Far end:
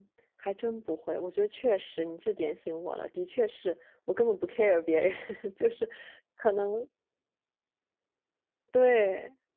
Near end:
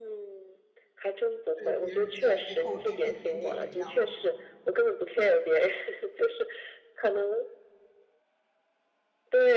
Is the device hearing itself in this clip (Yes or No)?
Yes